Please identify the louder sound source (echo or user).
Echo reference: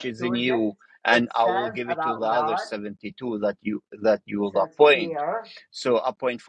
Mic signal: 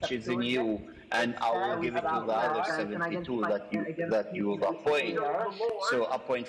echo